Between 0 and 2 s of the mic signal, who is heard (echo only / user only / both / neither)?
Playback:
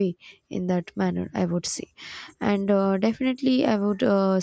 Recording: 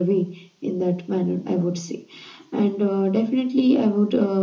echo only